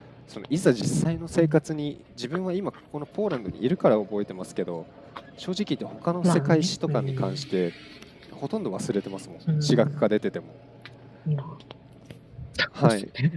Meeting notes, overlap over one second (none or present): present